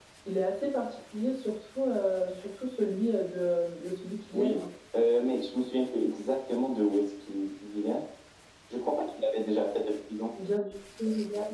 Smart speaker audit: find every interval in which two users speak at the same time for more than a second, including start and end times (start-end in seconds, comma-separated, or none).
none